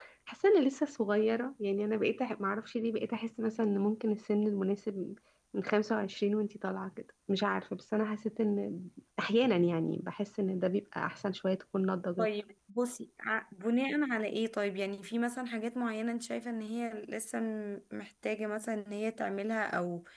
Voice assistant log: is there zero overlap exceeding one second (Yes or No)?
Yes